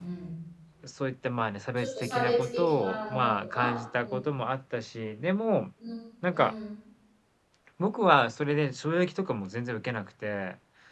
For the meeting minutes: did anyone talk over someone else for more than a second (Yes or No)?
Yes